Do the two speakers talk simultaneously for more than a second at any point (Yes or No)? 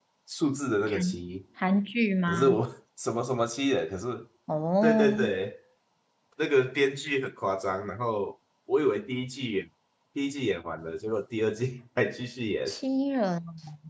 No